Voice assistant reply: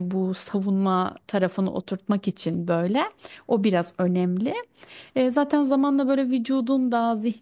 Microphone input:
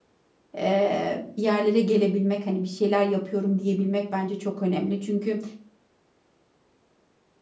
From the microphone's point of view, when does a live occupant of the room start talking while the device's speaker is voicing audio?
0.6 s

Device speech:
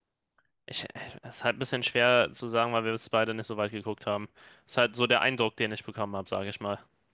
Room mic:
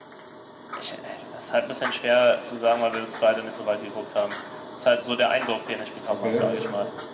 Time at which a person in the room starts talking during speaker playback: 6.1 s

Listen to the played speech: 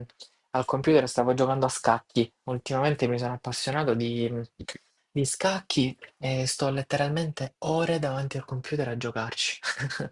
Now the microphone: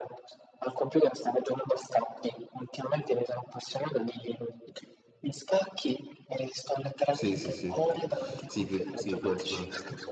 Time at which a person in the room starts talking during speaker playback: 7.1 s

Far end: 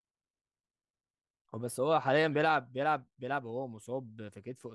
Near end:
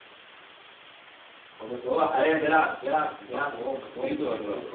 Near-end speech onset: 2.9 s

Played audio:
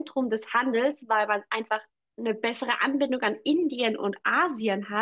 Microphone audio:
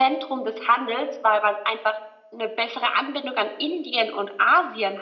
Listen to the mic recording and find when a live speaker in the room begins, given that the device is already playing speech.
none

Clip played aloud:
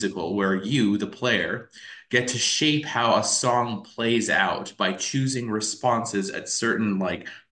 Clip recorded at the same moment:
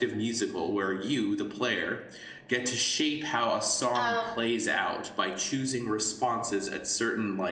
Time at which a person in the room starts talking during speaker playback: 3.9 s

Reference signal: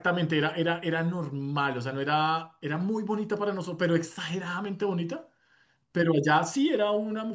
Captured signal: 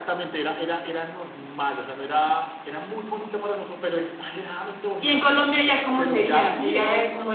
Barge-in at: 5.0 s

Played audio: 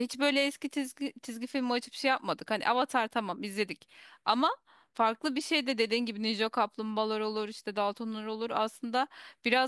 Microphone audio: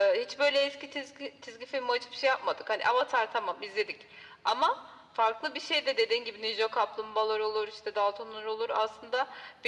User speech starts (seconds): none

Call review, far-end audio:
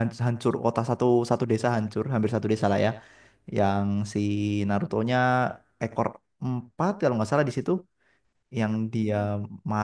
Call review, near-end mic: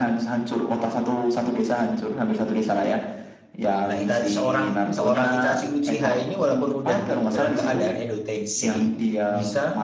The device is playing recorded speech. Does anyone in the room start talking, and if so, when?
3.9 s

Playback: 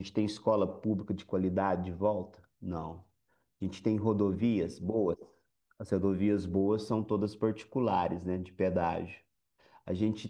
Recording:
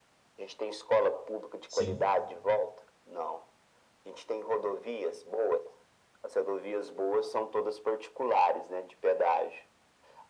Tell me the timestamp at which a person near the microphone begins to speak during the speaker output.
1.6 s

